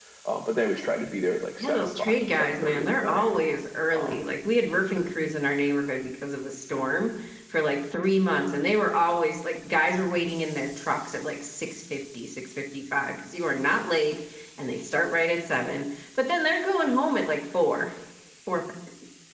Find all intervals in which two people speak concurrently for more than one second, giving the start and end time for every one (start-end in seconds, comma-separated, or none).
1.6-3.3